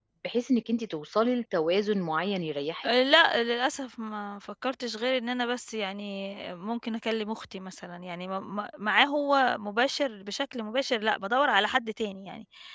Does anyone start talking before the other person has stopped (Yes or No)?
No